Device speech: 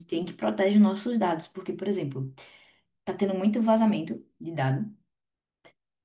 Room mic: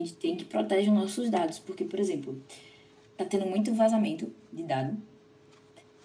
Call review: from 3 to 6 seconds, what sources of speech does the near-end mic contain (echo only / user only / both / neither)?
echo only